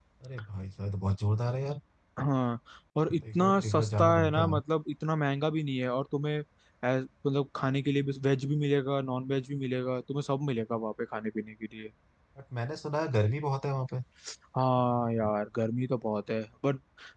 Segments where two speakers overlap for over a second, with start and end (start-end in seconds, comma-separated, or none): 3.3-4.6